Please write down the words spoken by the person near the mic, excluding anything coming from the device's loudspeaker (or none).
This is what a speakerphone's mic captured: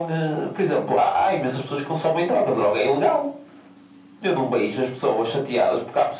none